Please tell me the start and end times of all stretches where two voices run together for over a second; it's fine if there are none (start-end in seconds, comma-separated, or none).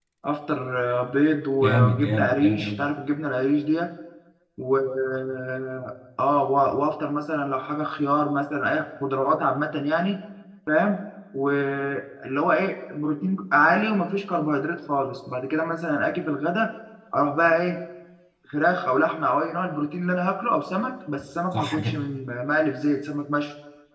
1.6-2.9